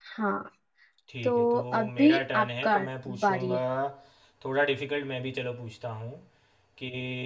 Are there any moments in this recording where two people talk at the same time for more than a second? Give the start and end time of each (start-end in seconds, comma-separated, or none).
1.2-2.8